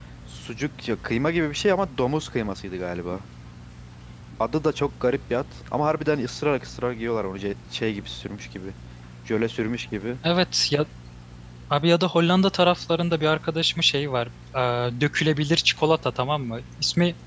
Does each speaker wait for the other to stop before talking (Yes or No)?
Yes